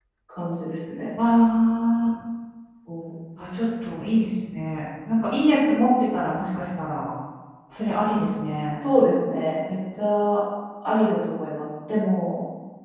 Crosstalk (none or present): none